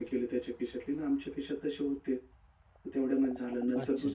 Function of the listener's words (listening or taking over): listening